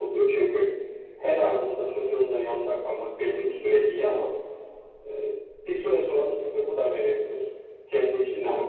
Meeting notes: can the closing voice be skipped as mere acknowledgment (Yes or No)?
Yes